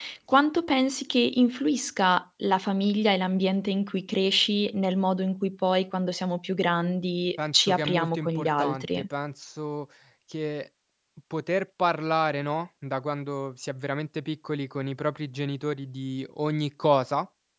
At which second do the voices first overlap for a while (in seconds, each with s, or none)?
7.4 s